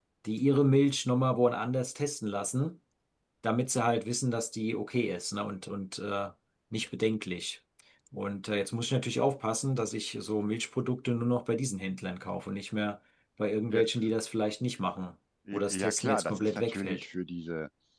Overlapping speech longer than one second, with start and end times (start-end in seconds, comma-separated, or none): 15.7-17.0